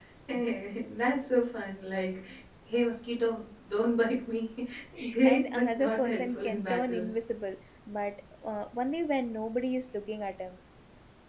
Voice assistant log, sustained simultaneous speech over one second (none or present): present